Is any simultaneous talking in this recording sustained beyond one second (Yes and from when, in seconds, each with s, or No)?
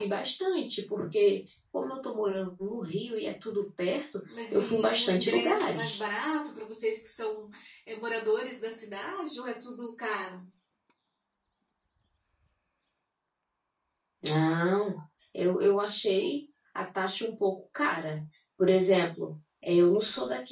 Yes, from 4.3 s